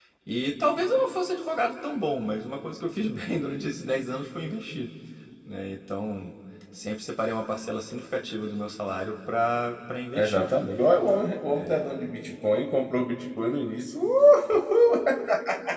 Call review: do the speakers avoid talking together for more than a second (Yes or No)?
Yes